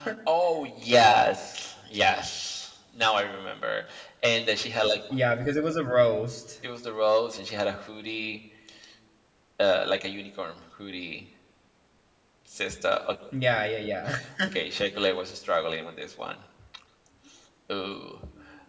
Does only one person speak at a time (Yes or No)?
Yes